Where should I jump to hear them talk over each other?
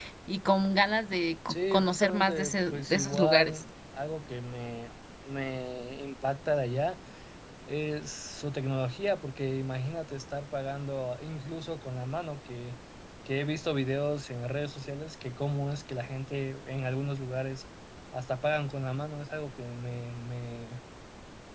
1.5 s

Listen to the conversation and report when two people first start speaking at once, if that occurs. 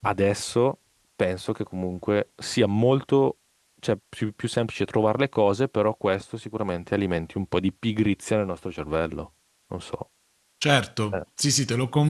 none

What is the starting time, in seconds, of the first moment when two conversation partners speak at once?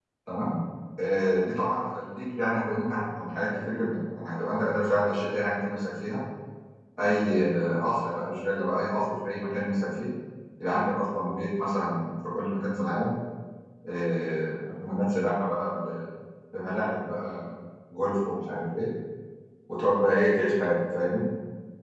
none

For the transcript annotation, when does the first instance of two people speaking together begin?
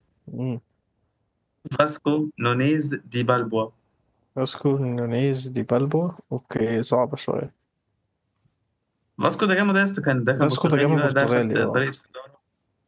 10.3 s

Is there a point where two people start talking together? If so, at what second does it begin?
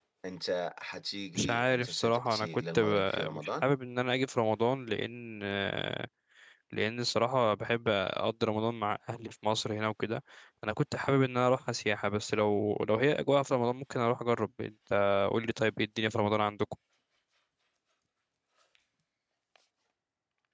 1.4 s

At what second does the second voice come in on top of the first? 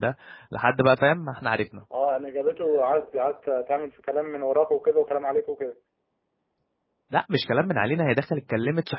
none

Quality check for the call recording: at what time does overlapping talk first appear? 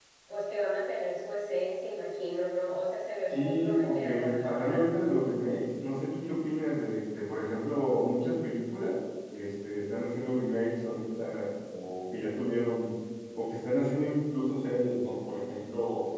3.3 s

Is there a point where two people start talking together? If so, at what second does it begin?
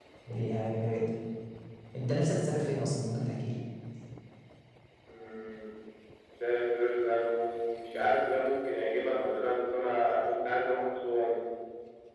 none

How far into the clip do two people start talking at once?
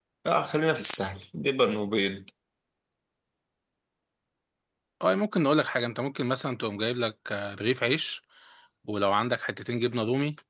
none

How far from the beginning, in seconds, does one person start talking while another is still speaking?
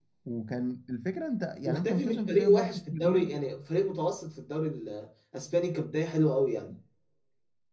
1.6 s

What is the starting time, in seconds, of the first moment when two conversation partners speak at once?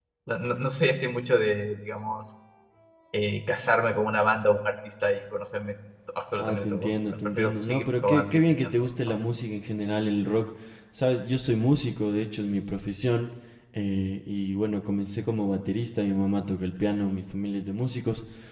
6.4 s

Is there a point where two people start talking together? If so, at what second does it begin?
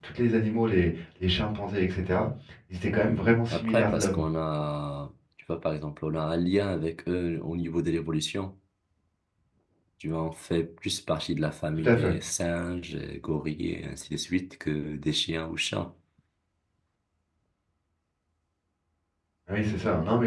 3.0 s

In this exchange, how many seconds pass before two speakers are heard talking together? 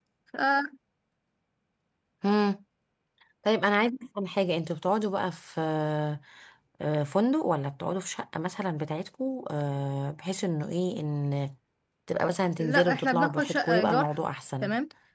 12.6 s

